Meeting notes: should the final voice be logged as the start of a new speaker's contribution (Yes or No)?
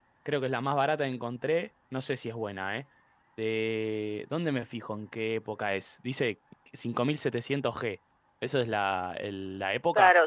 Yes